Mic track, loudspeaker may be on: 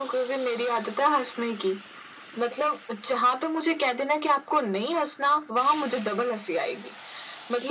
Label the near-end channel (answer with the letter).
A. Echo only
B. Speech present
A